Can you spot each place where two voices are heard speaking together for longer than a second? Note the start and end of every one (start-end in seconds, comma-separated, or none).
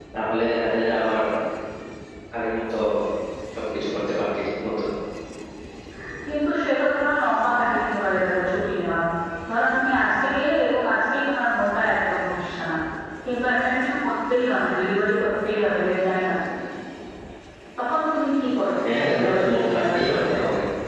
19.0-20.2